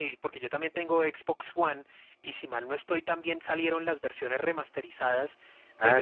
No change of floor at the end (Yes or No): Yes